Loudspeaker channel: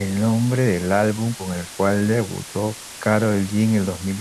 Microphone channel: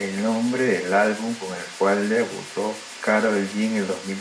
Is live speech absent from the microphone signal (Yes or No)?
Yes